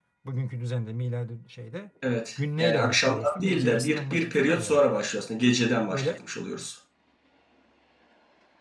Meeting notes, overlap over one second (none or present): present